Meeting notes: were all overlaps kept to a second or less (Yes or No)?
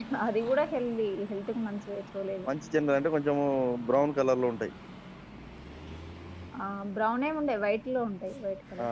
Yes